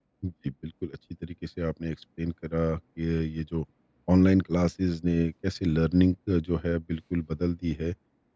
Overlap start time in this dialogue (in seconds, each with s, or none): none